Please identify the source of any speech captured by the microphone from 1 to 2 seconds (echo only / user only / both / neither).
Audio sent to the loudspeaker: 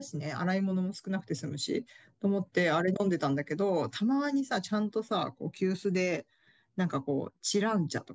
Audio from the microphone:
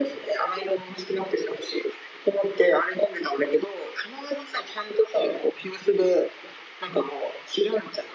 echo only